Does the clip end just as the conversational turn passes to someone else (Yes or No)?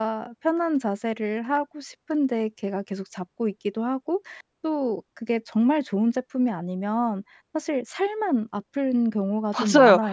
Yes